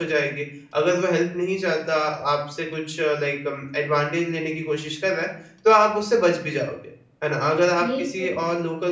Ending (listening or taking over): listening